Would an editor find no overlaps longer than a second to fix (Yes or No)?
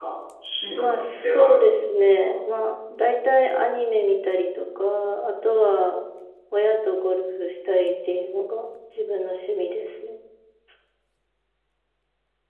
No